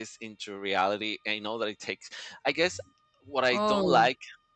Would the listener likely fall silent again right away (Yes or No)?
Yes